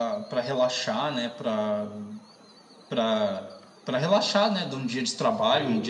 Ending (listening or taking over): listening